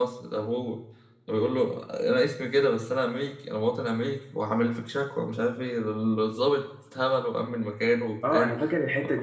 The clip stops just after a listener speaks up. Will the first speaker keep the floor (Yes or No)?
No